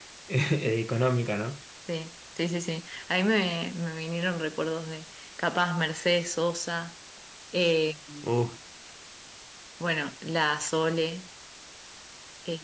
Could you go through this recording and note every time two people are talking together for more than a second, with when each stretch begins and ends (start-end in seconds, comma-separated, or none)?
none